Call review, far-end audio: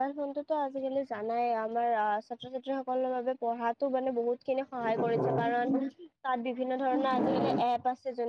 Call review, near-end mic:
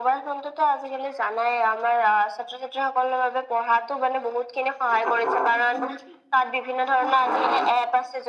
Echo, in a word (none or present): present